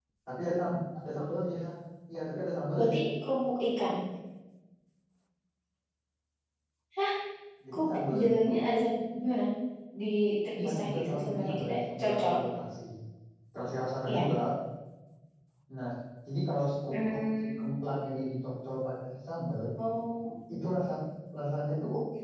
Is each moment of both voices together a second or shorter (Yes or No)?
No